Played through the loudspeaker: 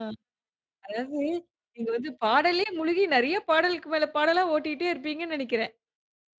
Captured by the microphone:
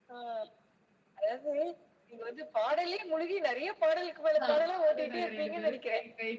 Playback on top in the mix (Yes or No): Yes